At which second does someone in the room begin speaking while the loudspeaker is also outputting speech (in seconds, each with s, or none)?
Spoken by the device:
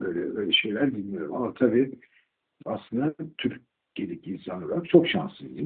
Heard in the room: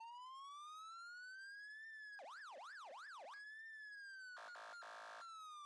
none